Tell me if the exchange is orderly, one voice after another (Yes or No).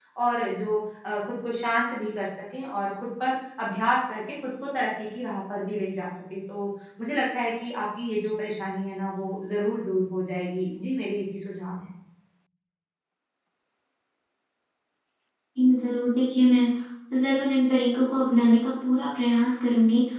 Yes